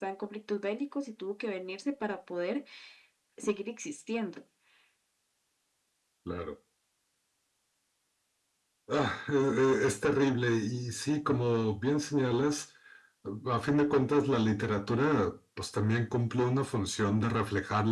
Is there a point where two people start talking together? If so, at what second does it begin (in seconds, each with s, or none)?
none